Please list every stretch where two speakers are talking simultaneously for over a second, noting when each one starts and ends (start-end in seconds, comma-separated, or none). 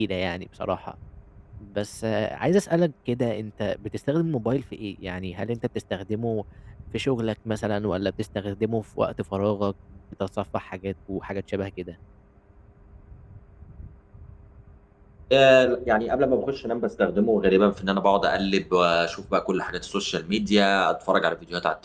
none